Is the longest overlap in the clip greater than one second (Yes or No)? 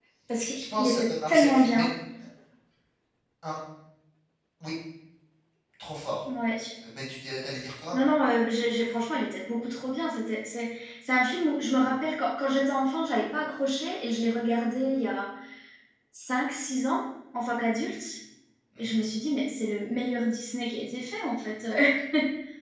Yes